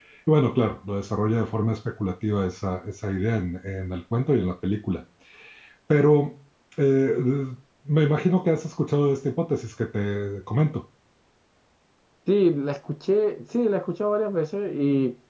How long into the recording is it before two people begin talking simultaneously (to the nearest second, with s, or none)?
none